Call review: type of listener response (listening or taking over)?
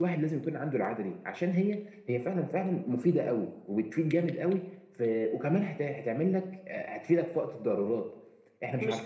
taking over